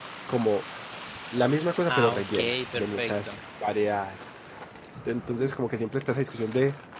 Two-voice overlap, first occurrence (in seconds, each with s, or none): 1.9 s